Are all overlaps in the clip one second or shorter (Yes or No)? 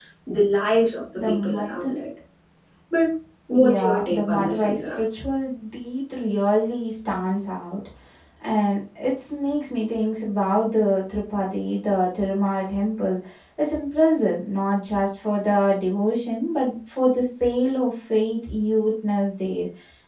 No